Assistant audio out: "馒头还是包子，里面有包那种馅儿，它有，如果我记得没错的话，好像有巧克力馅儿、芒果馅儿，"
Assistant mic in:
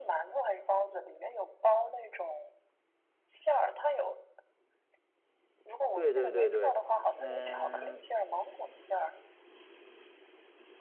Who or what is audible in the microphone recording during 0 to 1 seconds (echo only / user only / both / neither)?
echo only